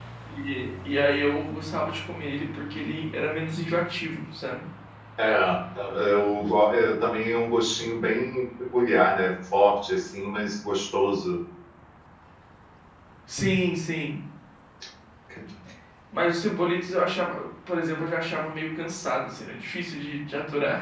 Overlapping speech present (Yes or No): No